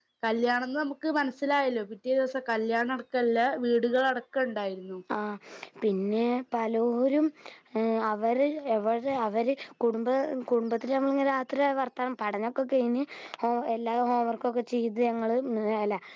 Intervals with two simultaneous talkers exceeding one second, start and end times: none

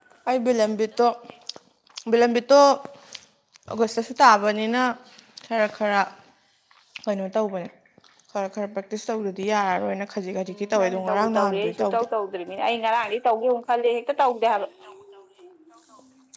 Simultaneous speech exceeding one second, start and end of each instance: 10.8-12.0

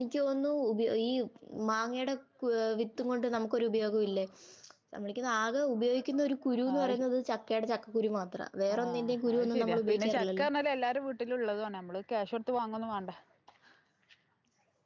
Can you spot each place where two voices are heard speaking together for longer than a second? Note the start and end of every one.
8.7-10.5

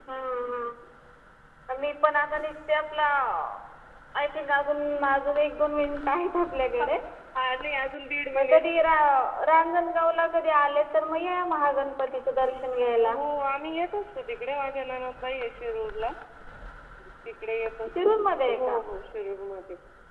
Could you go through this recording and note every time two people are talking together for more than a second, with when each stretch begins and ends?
none

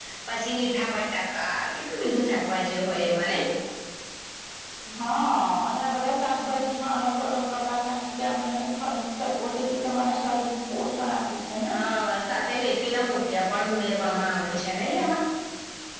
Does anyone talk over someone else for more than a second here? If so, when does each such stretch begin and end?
none

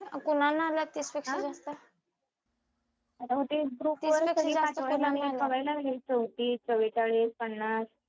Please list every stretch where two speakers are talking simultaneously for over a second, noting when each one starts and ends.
4.0-5.5

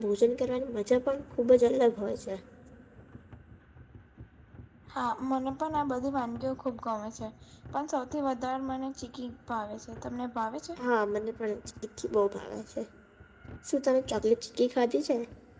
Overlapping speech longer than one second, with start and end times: none

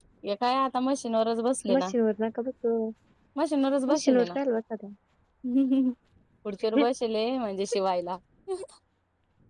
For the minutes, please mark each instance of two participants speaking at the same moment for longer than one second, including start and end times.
none

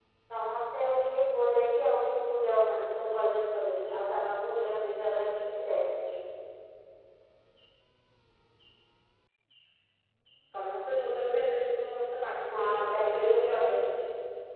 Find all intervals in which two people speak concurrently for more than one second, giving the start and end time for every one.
12.5-13.7

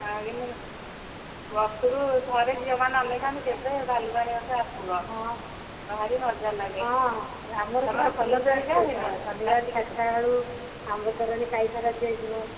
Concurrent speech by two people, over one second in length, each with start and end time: 7.9-9.1

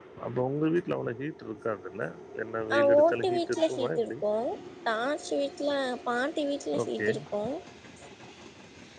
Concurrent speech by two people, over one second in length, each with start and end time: 2.7-4.1

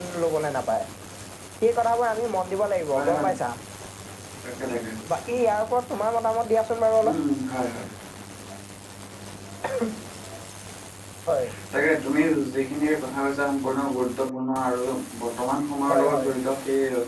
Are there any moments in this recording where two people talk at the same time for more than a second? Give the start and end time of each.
none

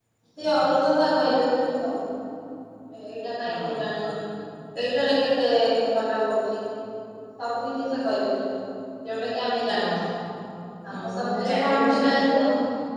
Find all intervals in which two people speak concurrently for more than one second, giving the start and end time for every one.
10.9-12.4

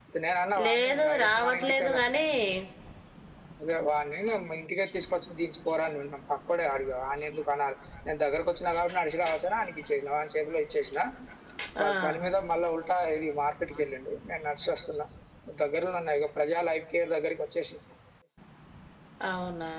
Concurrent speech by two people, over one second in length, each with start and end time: 0.7-2.0

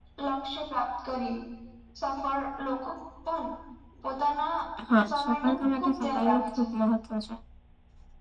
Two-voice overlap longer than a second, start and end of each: 5.1-6.6

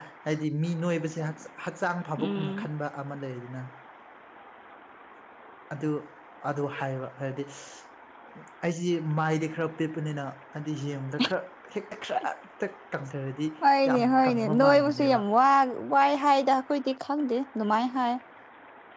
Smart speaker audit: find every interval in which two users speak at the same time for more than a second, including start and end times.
13.9-15.2

